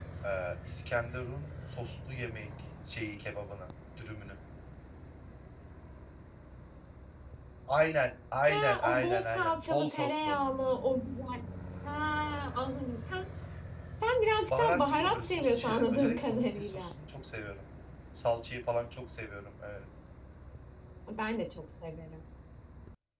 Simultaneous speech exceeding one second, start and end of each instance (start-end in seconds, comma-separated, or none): 8.4-10.4, 14.6-16.9